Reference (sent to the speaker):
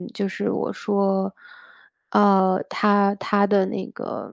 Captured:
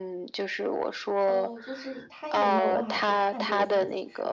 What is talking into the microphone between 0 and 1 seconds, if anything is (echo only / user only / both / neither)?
echo only